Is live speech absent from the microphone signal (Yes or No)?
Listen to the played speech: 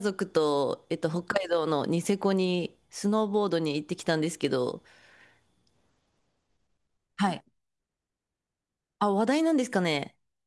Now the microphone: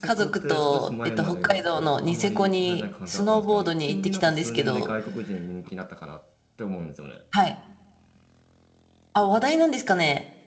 No